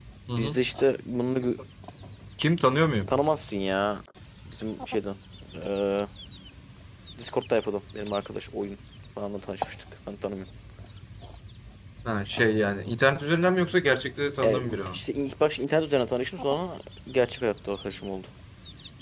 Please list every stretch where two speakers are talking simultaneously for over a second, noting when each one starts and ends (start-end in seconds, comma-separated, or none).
none